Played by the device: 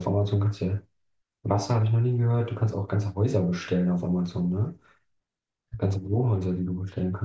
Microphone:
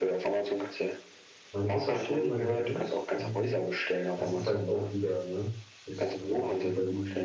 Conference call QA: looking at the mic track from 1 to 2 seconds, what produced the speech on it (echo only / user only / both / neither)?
both